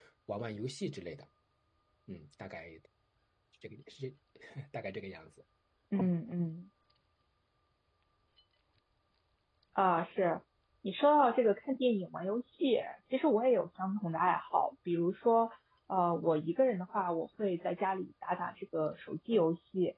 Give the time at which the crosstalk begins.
none

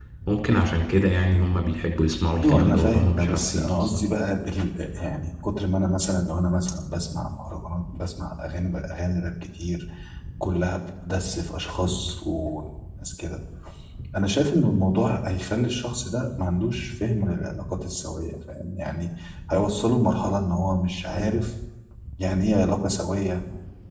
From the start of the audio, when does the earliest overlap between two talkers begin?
2.4 s

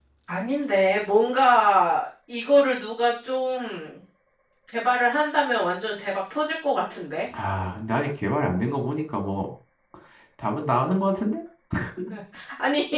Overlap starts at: none

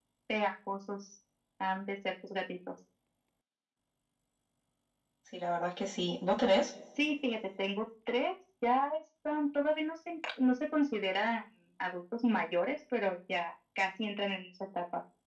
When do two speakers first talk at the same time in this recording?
none

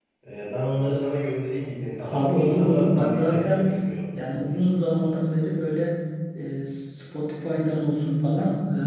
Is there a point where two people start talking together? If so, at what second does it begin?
2.0 s

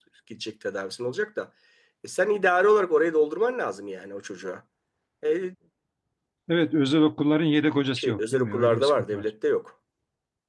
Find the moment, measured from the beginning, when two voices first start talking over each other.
8.0 s

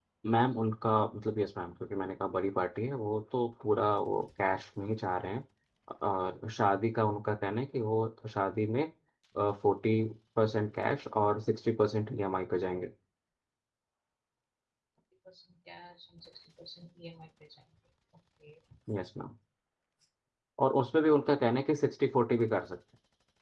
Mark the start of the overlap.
none

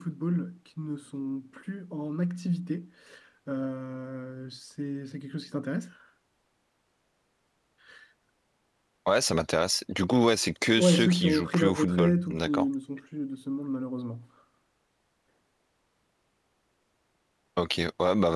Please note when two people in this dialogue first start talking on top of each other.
10.8 s

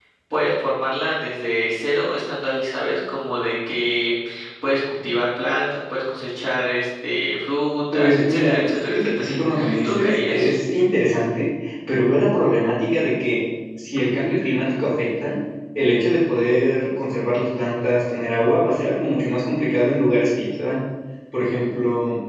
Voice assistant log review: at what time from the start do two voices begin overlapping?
7.9 s

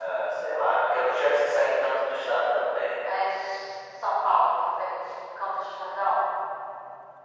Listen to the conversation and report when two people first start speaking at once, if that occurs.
none

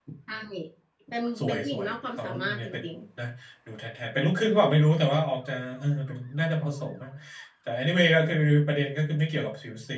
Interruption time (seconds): 1.4 s

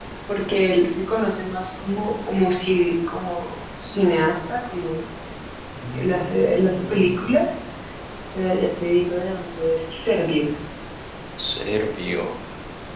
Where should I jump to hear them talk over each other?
5.9 s

